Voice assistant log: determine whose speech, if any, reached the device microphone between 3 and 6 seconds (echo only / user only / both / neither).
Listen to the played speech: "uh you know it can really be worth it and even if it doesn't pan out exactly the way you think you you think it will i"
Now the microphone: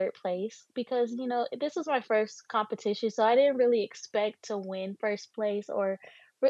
user only